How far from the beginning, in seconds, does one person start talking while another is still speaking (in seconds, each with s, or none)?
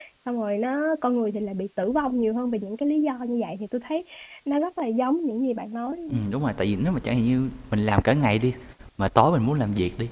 none